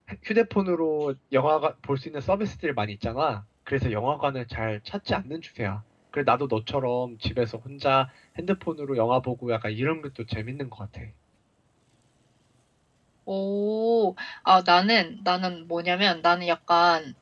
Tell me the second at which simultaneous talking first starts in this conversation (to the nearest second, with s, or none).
none